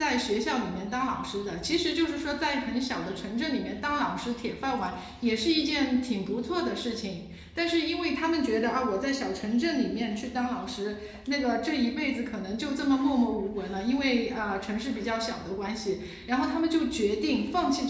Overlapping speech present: No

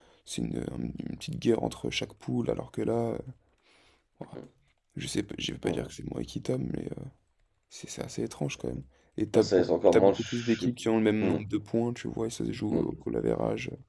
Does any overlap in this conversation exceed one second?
Yes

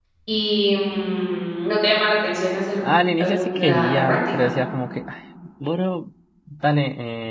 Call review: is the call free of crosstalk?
No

